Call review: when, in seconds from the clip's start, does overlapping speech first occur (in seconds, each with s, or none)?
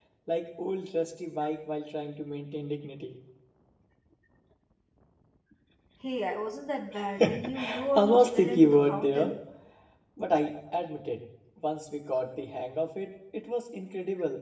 7.2 s